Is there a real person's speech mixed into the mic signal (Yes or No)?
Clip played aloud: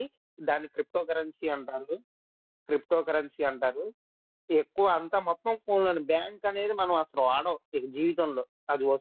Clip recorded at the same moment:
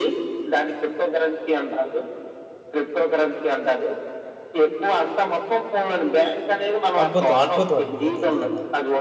Yes